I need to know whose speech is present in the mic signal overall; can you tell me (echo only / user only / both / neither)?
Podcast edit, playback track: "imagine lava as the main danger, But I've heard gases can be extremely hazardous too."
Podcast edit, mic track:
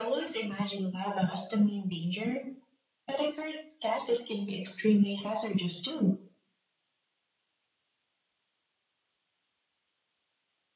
echo only